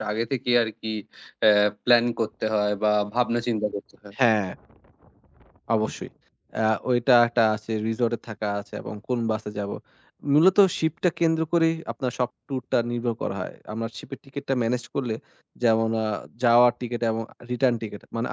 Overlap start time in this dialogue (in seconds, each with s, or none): none